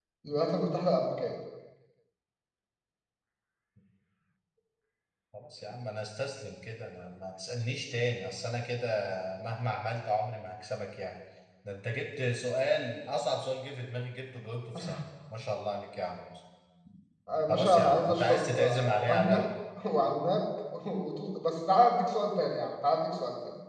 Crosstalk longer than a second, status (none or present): present